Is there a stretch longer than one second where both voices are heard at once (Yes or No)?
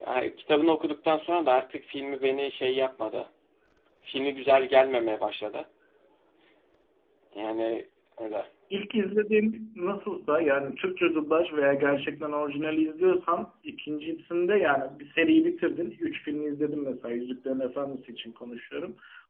No